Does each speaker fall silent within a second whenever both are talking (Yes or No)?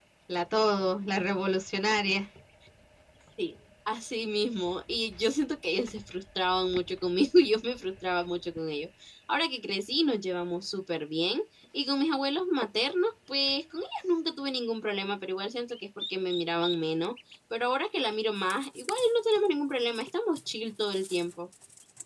Yes